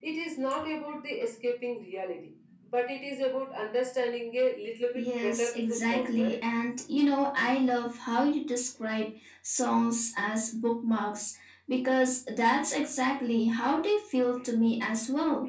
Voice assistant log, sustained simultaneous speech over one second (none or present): present